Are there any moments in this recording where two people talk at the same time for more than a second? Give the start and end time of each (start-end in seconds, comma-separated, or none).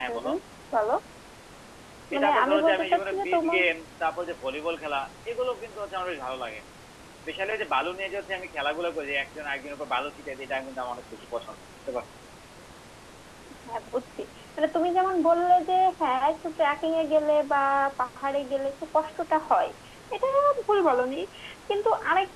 2.1-3.6